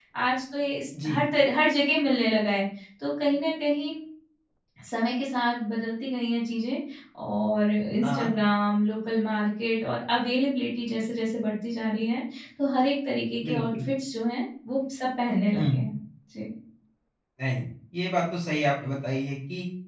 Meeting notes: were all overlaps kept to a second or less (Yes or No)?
Yes